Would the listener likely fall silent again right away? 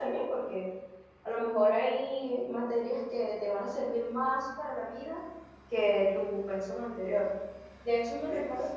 Yes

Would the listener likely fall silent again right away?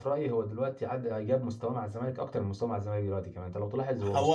No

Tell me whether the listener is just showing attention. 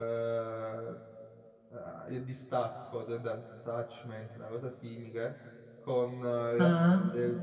Yes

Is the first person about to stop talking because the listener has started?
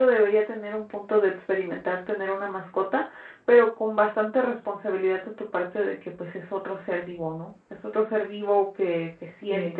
No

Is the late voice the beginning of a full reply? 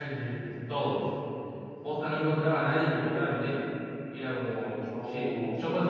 No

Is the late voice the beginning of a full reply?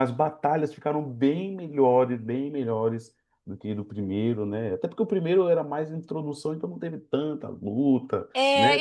Yes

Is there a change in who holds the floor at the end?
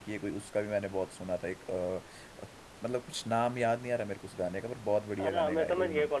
Yes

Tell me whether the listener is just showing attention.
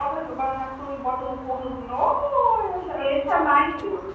No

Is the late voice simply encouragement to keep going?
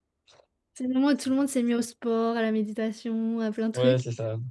No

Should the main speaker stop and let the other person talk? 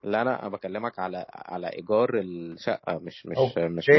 Yes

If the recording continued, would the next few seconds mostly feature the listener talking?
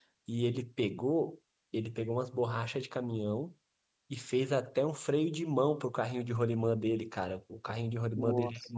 No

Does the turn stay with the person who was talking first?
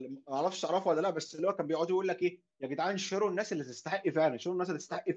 Yes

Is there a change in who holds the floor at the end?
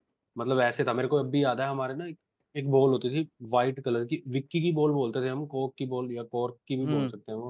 Yes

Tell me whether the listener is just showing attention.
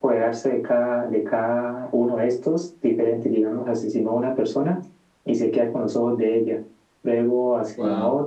Yes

